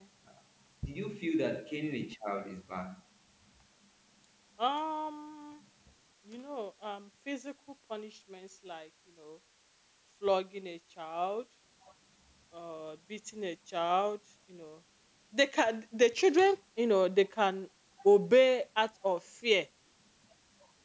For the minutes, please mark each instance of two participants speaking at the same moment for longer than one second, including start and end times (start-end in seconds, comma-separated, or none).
none